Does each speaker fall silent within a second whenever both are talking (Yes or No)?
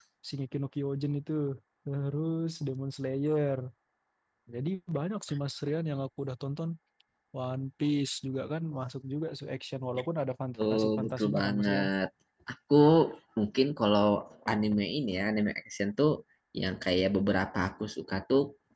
No